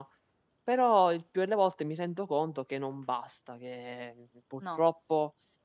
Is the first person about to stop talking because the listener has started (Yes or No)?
No